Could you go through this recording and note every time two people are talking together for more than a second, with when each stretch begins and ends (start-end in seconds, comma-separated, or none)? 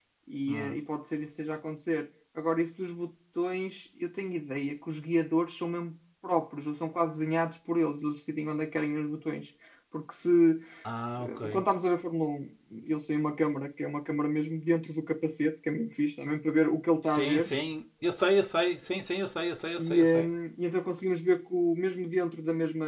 none